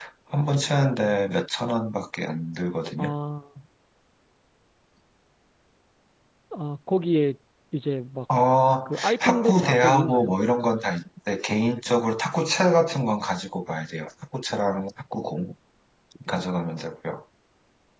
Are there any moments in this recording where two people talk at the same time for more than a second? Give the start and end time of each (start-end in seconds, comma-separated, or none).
8.8-10.3